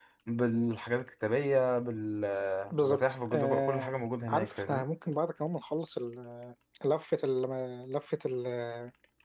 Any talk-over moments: Yes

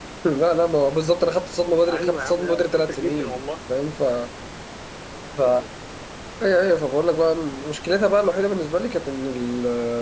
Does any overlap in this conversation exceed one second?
Yes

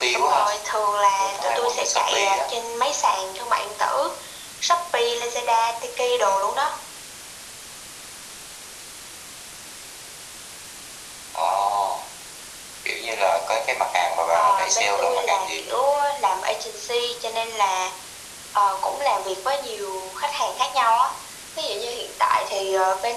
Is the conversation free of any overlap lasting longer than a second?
No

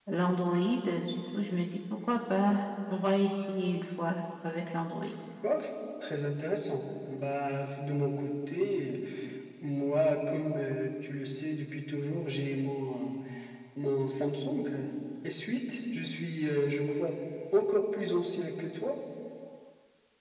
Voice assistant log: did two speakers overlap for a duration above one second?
No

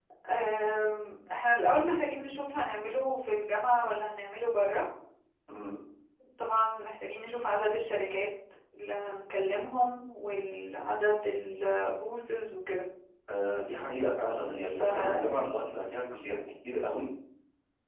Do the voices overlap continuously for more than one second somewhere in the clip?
No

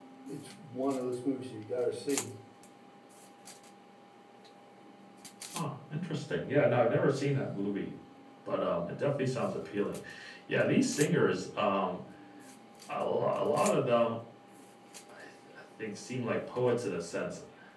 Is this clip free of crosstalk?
Yes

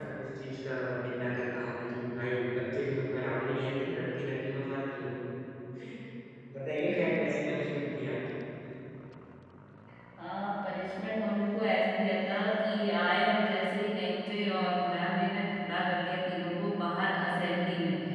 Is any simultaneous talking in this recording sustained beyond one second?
No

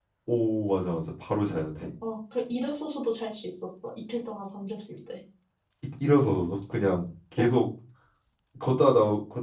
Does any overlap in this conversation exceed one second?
No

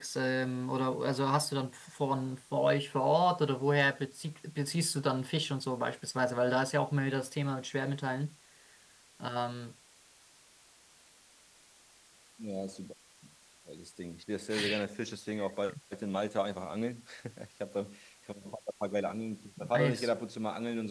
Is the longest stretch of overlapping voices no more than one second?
Yes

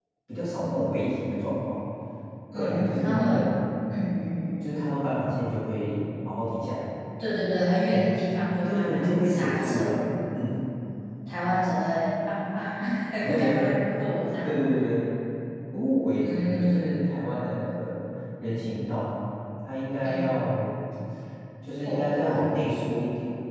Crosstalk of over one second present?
Yes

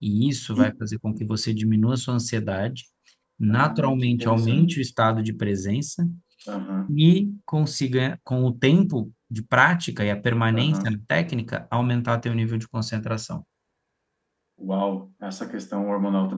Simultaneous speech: Yes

